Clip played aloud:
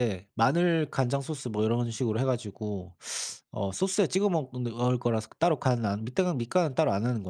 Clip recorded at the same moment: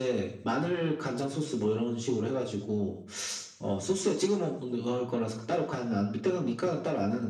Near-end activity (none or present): none